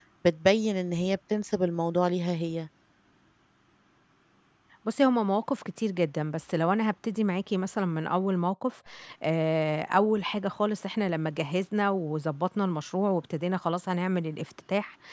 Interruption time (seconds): none

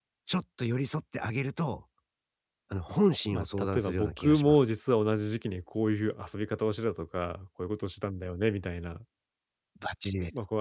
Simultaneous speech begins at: 3.3 s

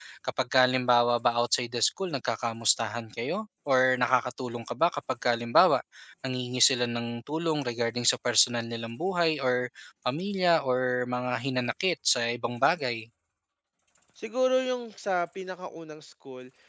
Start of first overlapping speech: none

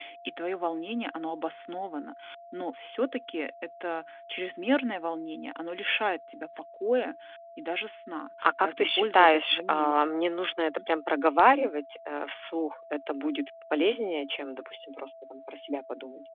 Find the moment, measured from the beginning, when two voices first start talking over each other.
8.4 s

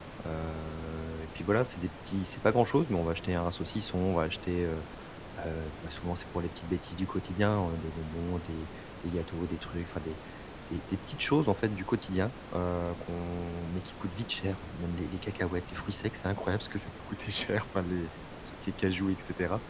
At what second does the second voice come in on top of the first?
none

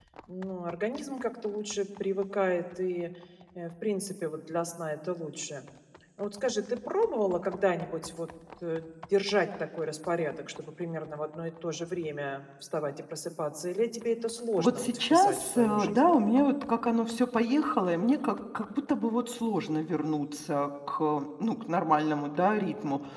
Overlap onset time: 14.6 s

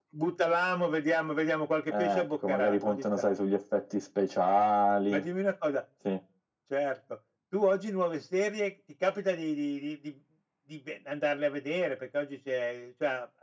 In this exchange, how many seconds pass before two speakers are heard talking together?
1.9 s

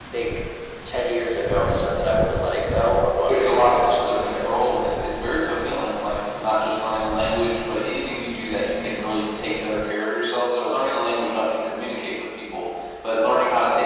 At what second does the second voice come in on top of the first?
3.3 s

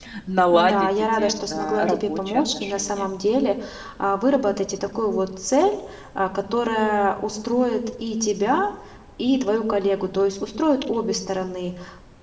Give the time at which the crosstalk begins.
0.5 s

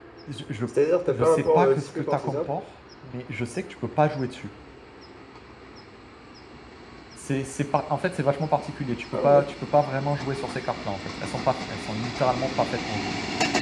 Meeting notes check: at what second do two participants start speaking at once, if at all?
1.1 s

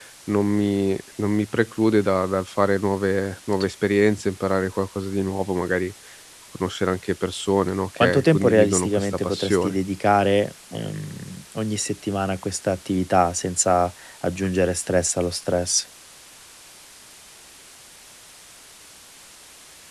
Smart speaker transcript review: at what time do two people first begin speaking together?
8.0 s

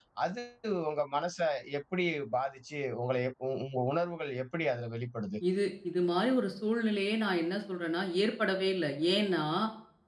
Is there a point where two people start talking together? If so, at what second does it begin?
none

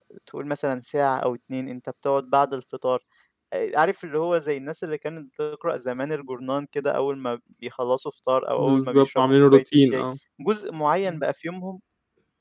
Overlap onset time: 8.6 s

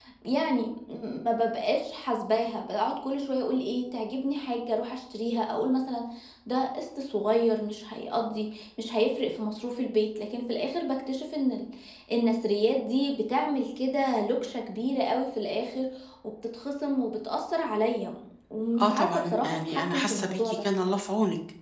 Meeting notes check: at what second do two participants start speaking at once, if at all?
18.8 s

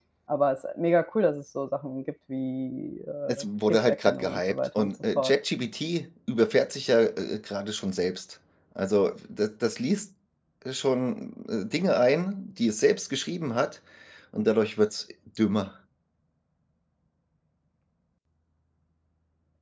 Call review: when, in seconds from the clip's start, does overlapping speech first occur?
3.3 s

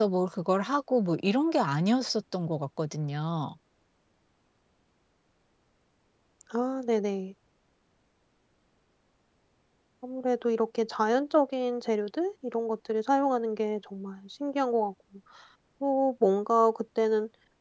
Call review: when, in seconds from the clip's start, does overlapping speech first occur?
none

